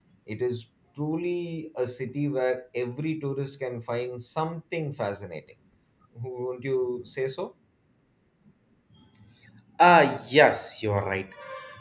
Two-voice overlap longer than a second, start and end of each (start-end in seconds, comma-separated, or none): none